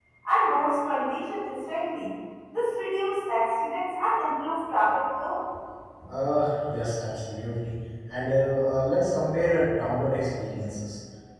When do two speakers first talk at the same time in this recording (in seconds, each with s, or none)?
none